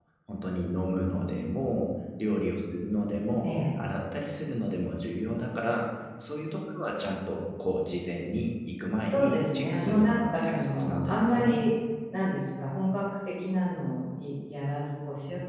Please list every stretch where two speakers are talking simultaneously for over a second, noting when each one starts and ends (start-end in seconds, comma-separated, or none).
9.1-11.6